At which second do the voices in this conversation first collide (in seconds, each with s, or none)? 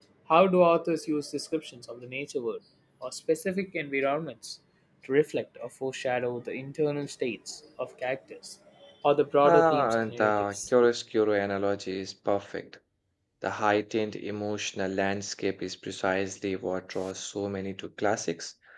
9.4 s